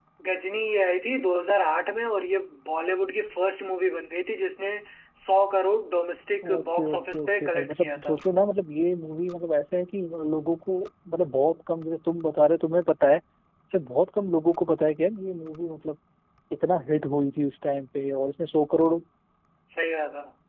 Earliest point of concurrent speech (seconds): 6.4 s

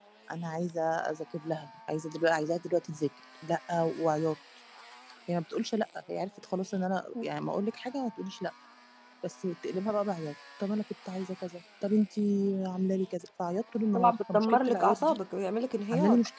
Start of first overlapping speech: 13.9 s

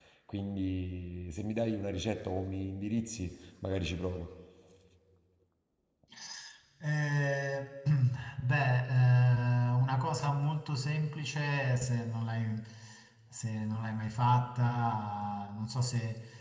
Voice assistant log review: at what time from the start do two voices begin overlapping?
none

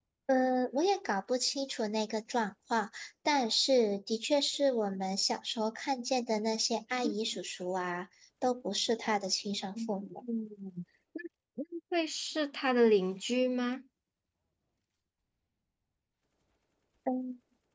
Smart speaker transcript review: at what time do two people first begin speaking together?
none

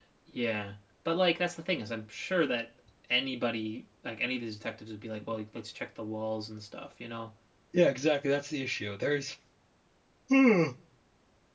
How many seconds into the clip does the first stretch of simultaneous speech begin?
none

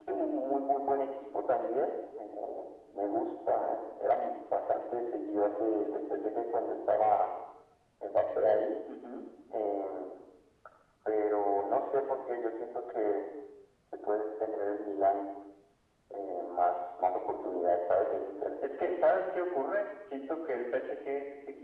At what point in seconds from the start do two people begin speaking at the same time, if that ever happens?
none

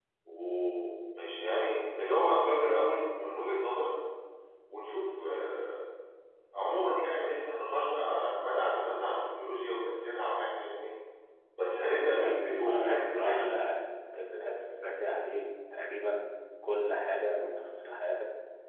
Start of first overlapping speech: 12.1 s

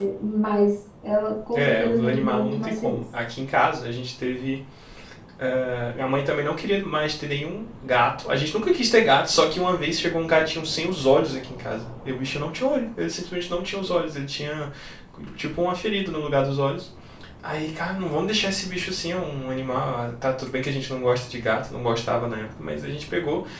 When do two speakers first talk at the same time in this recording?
1.5 s

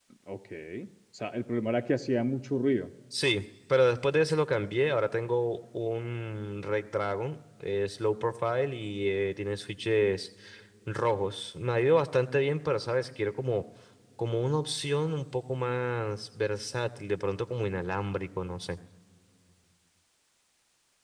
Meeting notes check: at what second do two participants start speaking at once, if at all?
none

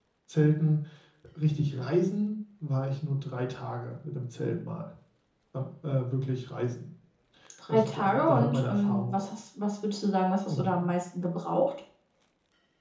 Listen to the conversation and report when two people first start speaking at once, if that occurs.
7.7 s

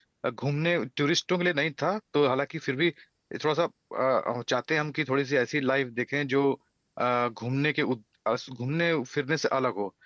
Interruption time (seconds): none

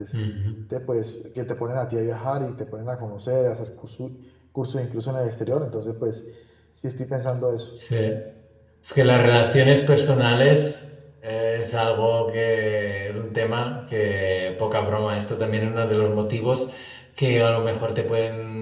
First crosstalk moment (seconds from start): none

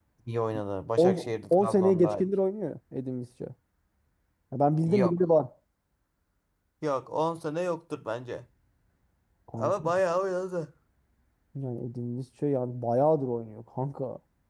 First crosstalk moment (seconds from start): 1.0 s

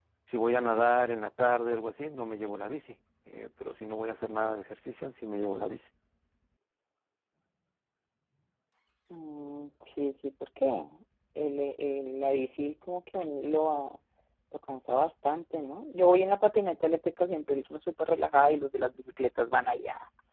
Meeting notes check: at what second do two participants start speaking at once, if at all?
none

